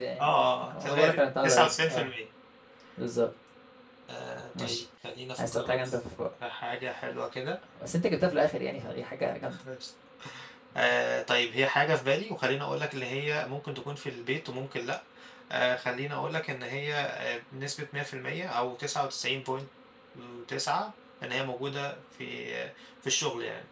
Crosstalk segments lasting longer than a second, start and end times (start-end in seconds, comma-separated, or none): 0.7-2.1